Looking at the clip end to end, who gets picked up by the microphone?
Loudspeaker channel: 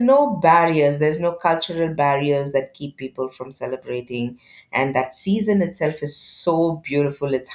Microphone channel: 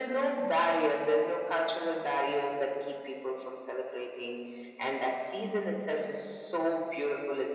echo only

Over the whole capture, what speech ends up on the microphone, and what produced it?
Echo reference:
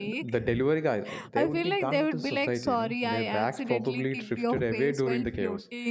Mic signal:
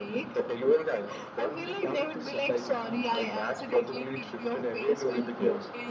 echo only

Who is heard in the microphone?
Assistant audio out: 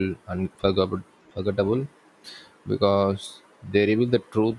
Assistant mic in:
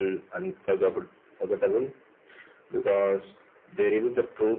echo only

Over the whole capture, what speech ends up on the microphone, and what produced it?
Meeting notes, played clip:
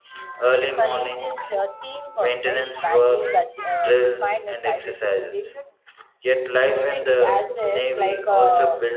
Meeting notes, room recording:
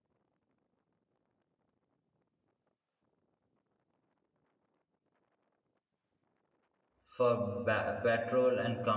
user only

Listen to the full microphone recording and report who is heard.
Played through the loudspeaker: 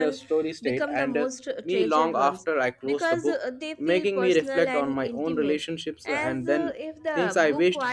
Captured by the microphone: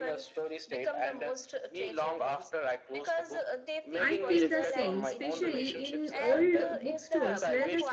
both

